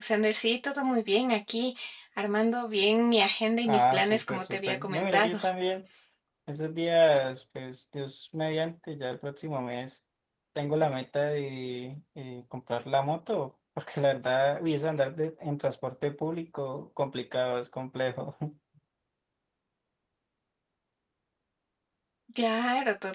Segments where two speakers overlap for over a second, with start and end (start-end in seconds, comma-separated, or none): 3.7-5.4